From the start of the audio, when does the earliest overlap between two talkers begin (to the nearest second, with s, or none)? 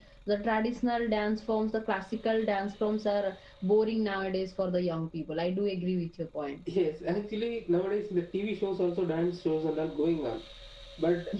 none